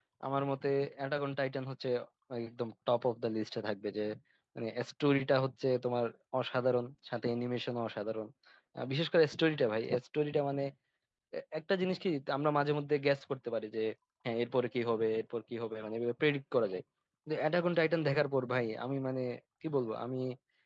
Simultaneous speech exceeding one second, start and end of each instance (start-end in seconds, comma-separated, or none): none